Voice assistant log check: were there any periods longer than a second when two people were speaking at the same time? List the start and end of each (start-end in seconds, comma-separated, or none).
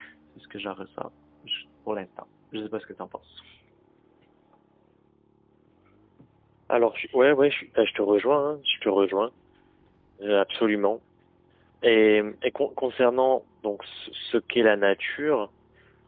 none